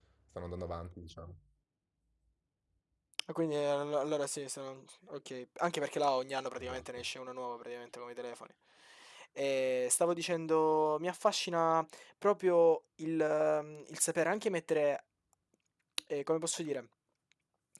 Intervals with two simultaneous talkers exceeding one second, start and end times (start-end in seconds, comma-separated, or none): none